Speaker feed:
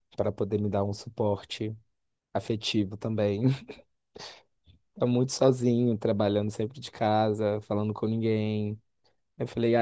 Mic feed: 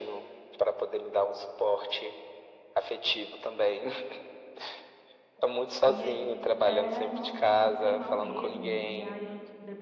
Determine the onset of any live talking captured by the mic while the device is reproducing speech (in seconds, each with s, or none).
5.8 s